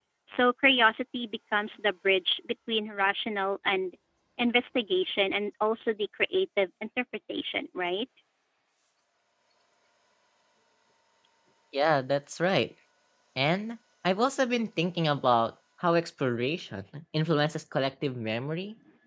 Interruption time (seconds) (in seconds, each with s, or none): none